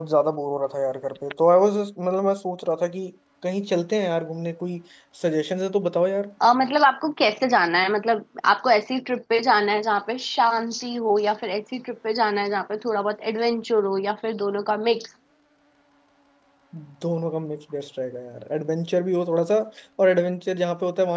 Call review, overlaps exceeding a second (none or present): none